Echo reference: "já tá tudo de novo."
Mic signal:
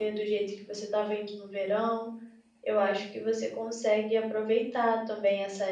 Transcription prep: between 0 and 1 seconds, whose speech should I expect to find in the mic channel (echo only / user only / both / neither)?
user only